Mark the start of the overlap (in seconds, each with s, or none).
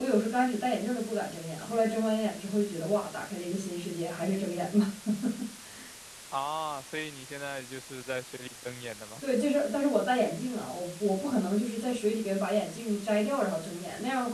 none